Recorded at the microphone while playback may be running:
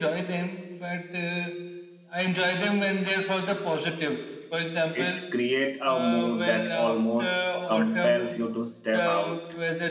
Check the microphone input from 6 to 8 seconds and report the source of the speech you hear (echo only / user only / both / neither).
both